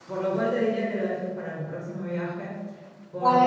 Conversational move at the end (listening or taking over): taking over